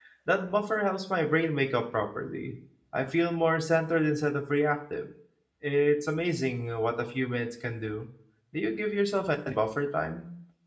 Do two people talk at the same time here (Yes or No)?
No